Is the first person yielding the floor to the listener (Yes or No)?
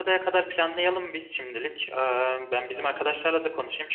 No